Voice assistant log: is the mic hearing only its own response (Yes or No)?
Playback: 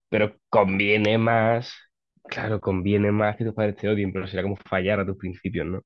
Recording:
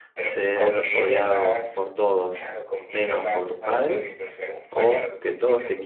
No